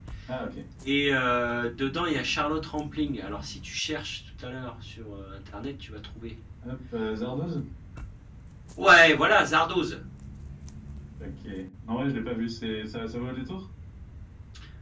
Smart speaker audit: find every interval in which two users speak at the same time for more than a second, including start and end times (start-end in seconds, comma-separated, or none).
none